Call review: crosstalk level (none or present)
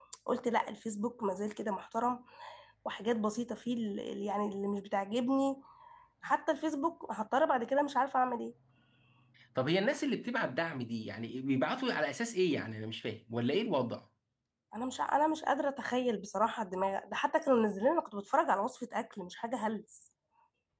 none